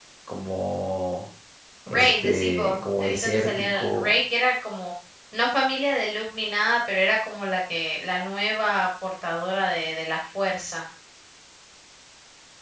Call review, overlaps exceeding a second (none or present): present